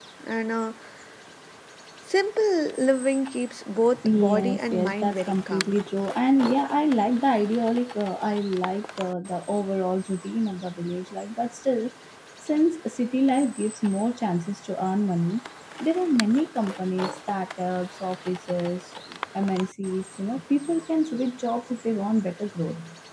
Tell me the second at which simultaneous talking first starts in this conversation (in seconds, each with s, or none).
3.9 s